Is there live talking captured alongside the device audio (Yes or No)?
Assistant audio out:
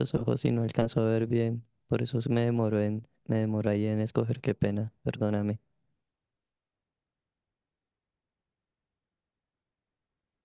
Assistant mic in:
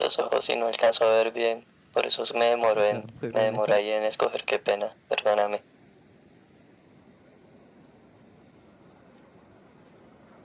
Yes